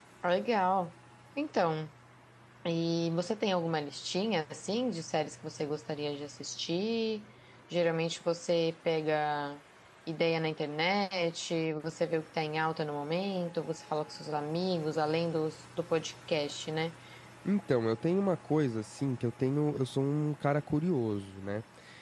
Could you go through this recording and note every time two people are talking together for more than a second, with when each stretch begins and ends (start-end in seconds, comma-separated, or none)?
none